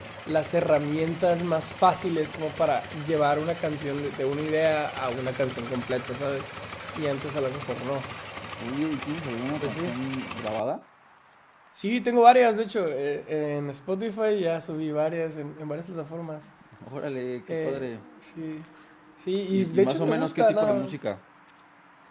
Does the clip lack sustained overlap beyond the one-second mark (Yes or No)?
No